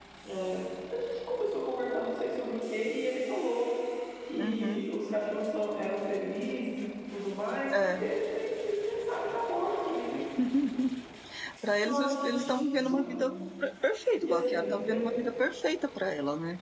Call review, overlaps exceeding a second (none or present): present